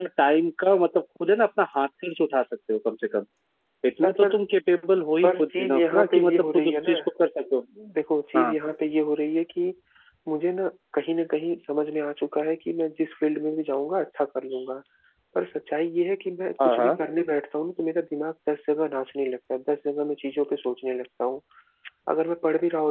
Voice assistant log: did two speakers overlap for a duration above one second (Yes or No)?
Yes